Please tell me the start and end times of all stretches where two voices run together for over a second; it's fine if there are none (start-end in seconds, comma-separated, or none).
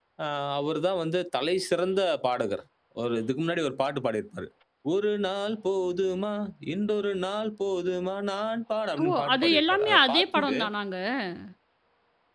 9.0-10.4